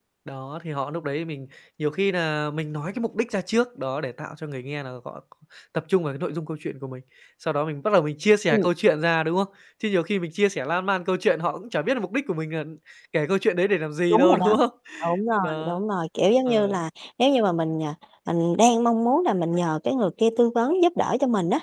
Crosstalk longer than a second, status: none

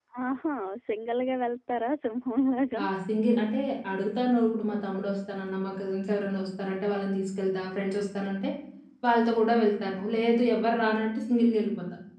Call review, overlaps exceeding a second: none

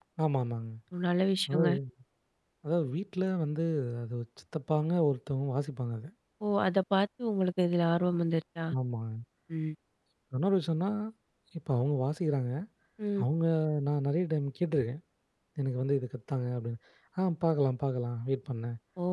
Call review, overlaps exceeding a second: none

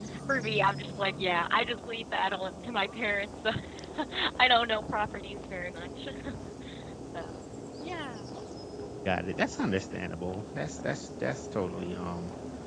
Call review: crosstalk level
none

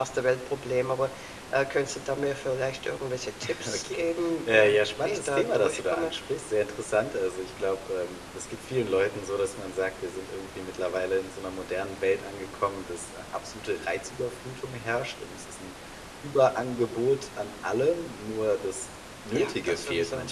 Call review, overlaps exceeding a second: present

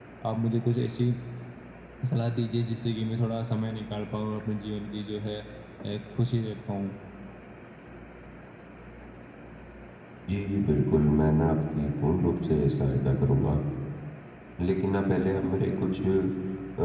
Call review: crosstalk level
none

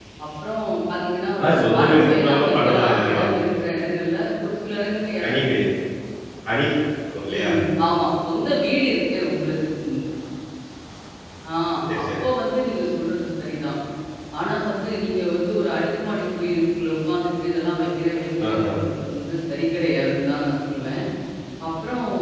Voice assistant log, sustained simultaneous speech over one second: present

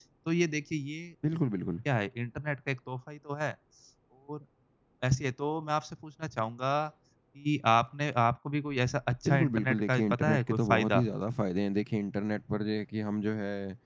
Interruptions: present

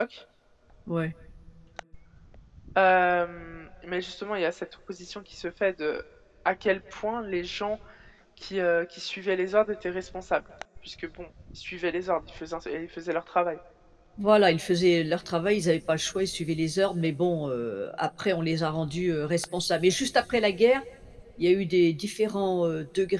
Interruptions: none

